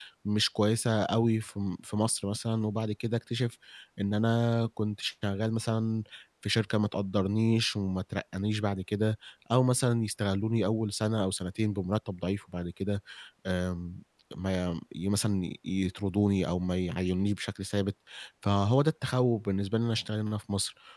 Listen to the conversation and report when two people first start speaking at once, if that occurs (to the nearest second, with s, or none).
none